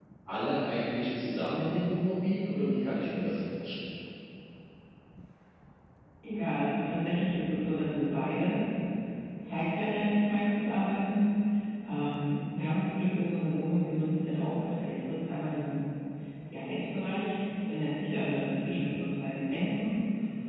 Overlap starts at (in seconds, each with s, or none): none